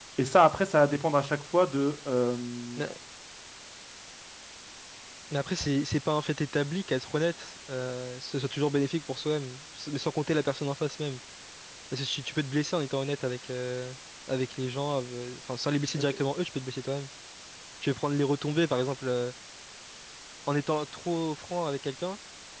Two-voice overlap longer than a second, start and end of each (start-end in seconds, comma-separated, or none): none